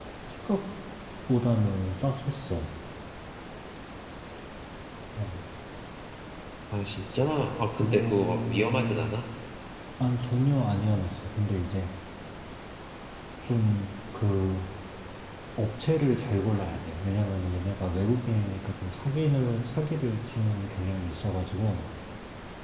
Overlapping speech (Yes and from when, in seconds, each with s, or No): Yes, from 7.8 s